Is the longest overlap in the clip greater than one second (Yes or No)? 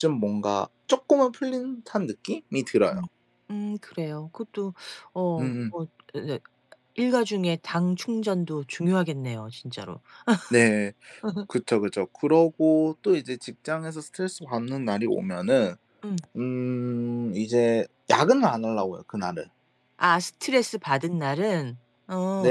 No